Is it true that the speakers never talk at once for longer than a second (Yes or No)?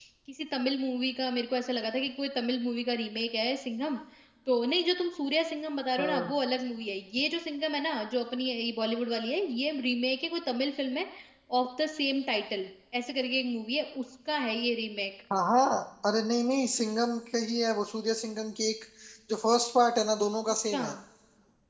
Yes